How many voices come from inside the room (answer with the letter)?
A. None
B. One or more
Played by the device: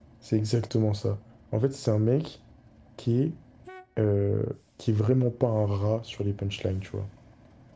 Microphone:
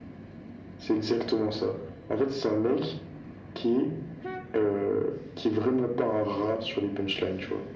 A